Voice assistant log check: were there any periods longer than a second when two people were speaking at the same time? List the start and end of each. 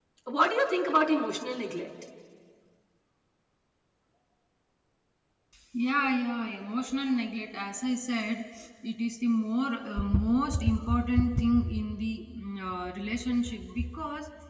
none

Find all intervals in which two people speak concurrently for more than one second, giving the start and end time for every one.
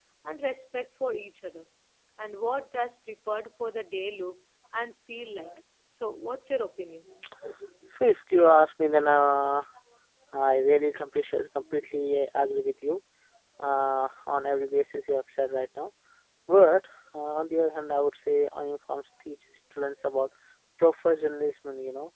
none

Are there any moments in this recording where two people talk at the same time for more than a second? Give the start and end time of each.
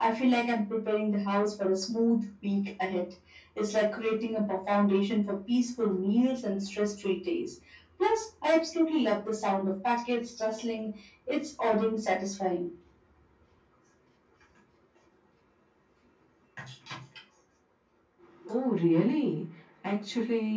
none

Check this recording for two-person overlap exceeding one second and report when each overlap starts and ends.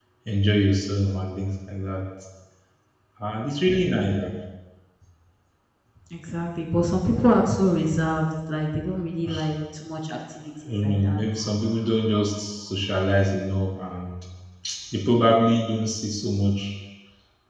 none

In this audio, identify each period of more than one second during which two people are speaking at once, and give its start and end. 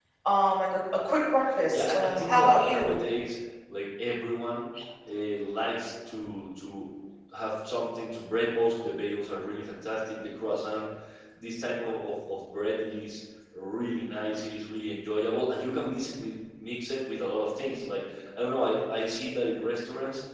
1.7-3.0

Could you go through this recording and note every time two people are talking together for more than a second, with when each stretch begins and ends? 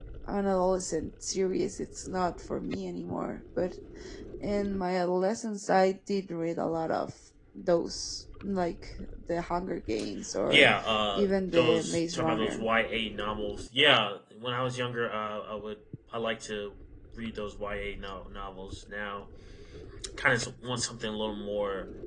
11.1-12.7

